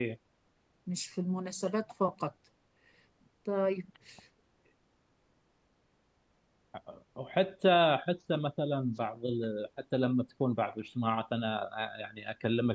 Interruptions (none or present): none